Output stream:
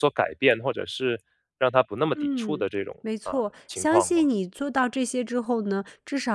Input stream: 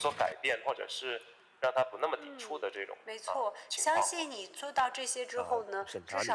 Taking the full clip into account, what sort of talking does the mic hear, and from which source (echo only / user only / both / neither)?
both